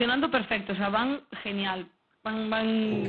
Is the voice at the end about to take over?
No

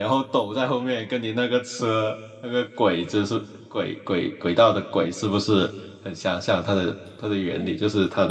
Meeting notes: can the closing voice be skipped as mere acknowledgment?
No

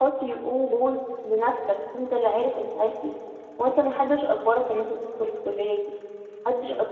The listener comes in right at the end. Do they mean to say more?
No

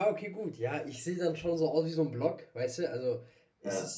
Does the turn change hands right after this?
No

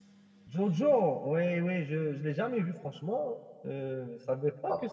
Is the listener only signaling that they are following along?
No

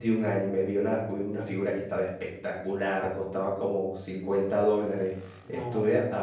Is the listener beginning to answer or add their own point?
No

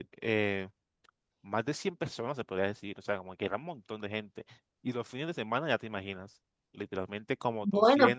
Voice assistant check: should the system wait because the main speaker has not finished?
Yes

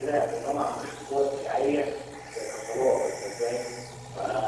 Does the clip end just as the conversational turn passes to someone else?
No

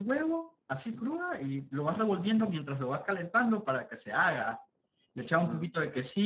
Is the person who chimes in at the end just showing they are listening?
Yes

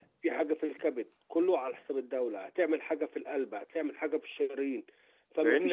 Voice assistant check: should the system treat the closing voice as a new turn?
Yes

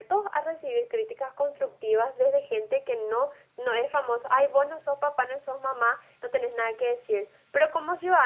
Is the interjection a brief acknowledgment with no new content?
Yes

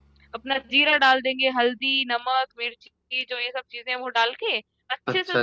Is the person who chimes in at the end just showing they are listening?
Yes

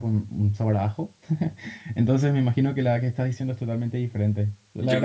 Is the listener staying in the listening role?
No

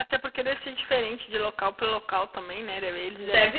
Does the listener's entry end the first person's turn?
No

